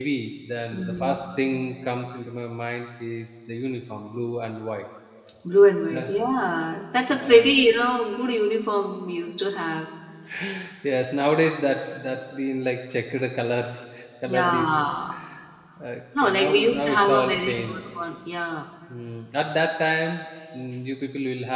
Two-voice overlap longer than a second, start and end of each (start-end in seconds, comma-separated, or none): 16.2-17.8